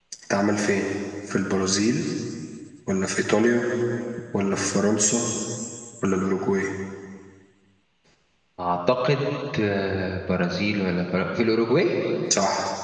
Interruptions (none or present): none